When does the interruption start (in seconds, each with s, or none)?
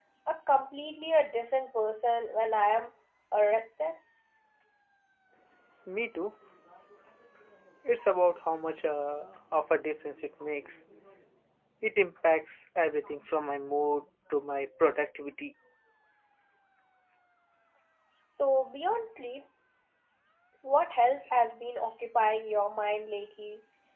none